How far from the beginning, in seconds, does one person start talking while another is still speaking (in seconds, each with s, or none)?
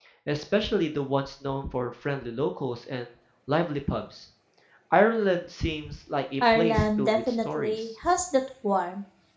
6.4 s